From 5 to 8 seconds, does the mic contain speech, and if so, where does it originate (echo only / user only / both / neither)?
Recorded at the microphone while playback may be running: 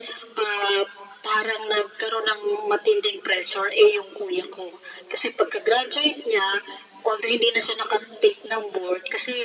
echo only